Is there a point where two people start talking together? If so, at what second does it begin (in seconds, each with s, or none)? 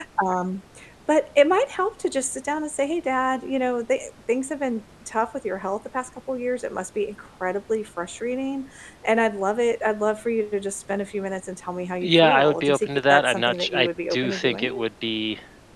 12.0 s